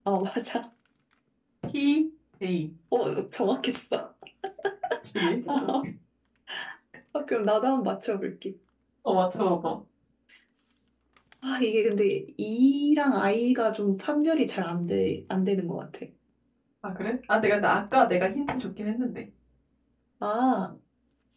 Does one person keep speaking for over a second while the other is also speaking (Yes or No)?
No